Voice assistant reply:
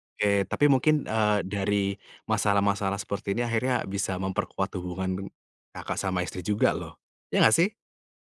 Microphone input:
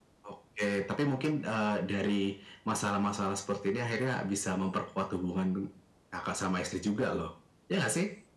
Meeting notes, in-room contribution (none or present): none